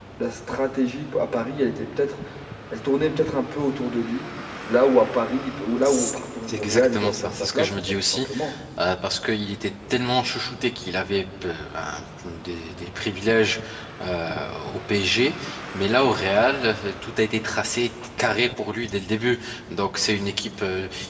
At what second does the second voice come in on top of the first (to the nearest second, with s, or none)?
6 s